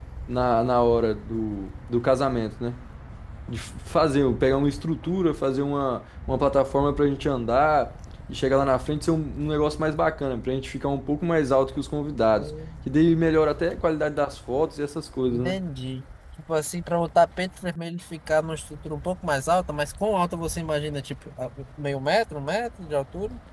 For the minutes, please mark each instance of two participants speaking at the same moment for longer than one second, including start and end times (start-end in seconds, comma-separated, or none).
none